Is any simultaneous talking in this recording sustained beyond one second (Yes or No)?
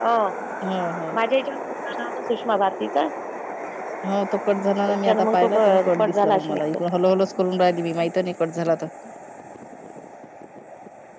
Yes